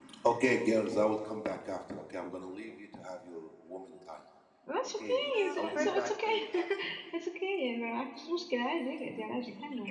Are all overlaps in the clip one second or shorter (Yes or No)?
No